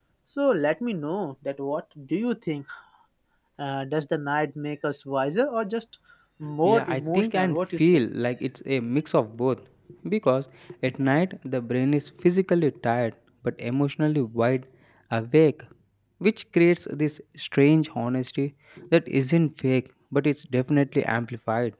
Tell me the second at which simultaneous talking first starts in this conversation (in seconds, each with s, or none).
6.6 s